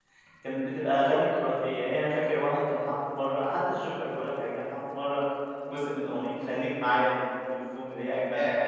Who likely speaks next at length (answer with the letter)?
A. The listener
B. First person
B